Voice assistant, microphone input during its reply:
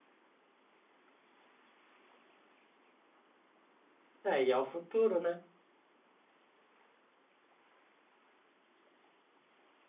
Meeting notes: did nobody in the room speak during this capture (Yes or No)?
No